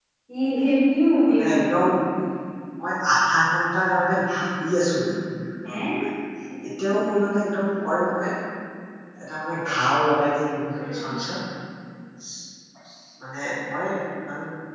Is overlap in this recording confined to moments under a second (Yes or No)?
Yes